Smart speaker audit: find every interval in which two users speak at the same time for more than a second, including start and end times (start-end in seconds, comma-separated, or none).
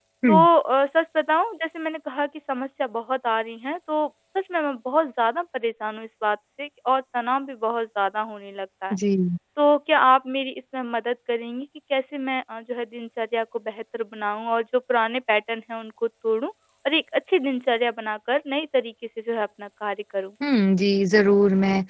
none